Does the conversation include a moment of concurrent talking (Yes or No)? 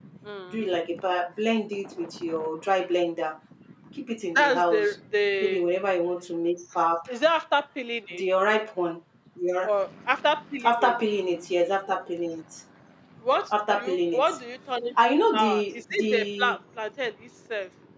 Yes